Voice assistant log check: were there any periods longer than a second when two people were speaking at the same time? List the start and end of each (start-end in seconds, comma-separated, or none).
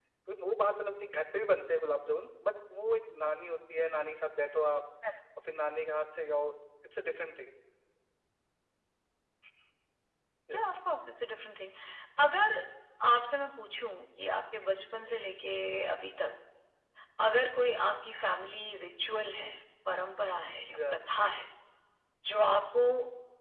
none